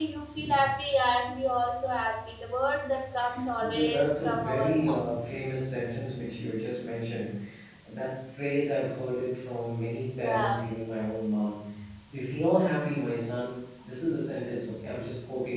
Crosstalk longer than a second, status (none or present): present